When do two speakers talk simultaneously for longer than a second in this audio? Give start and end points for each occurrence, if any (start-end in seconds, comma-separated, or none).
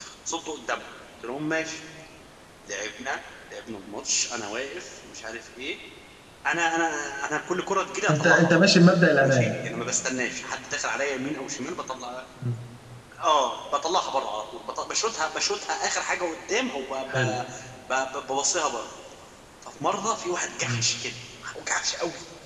none